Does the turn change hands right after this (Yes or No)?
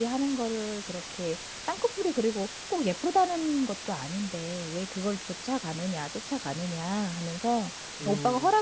No